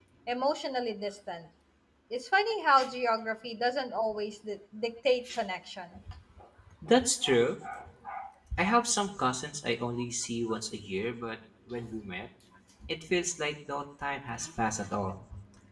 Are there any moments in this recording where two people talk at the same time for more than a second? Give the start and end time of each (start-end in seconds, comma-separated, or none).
none